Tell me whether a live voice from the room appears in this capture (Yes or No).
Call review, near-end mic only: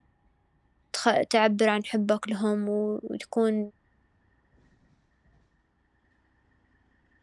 Yes